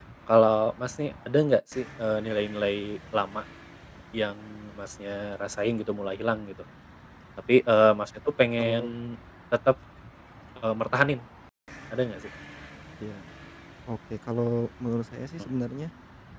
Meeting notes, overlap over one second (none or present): none